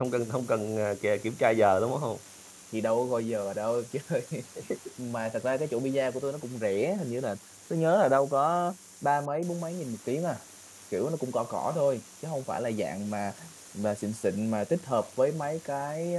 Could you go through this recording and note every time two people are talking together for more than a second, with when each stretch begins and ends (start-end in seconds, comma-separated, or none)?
none